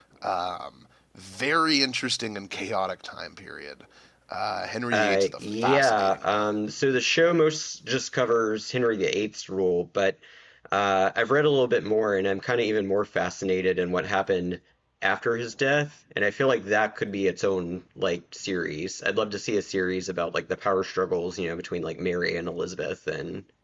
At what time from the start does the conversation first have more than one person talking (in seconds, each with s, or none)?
4.9 s